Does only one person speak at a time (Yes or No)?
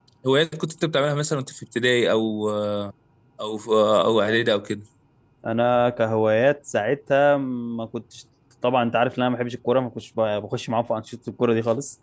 Yes